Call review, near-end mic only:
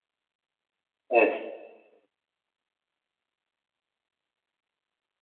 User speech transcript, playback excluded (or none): Evet.